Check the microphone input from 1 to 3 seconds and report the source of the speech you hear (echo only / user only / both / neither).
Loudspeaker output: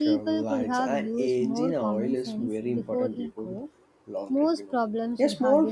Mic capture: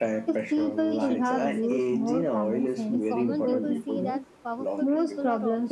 both